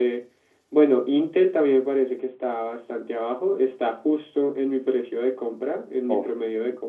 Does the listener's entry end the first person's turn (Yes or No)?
Yes